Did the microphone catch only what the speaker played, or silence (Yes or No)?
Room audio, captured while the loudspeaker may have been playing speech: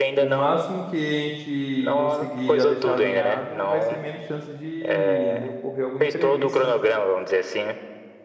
No